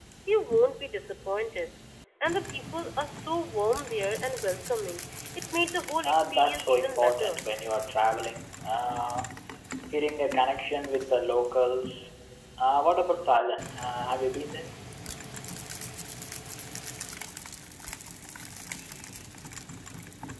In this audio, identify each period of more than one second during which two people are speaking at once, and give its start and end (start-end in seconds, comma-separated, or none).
6.0-7.4